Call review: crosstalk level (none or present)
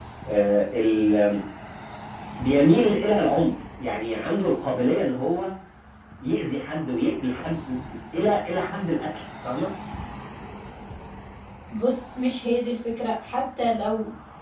none